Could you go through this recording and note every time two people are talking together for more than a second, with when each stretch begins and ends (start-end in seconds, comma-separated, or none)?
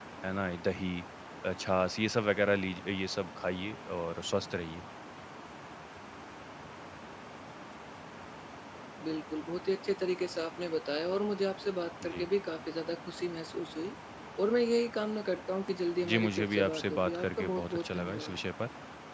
16.0-18.4